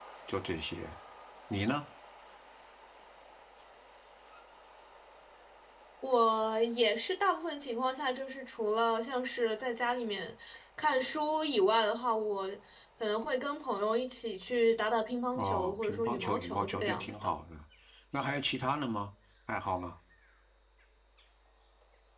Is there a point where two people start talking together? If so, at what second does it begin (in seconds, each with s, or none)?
15.4 s